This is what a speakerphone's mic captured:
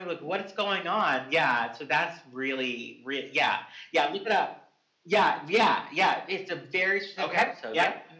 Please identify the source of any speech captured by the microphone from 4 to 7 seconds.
echo only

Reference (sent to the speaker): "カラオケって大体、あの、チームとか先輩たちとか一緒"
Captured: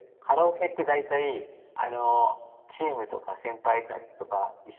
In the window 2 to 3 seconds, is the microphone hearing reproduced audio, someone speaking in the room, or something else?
echo only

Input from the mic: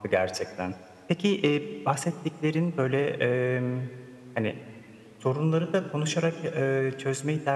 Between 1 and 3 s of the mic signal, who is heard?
echo only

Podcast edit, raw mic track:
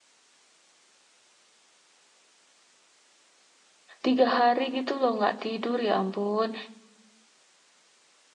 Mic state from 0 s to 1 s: neither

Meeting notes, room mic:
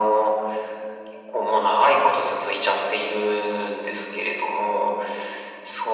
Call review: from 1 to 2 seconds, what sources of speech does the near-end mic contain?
echo only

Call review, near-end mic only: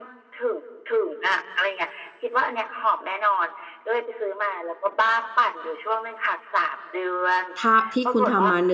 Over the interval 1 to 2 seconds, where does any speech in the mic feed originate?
echo only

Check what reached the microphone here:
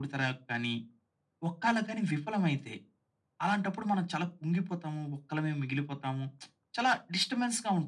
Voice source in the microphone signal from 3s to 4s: echo only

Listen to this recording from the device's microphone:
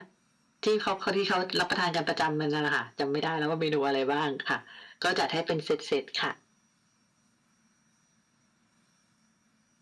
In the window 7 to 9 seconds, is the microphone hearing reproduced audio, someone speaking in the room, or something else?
neither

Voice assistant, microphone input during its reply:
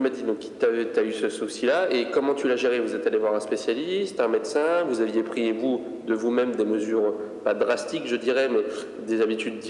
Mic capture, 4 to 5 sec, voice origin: echo only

